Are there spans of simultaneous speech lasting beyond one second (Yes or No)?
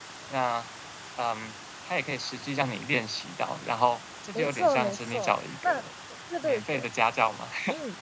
Yes